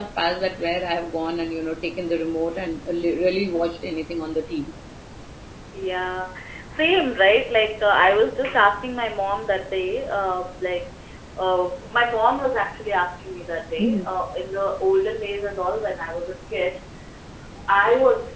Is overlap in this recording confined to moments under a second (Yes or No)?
Yes